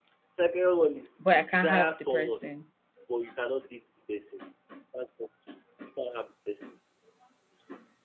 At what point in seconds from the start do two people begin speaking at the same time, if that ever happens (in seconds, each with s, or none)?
1.2 s